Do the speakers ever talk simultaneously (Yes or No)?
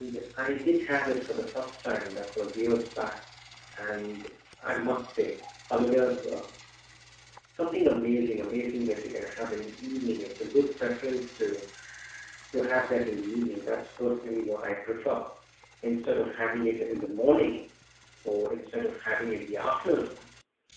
No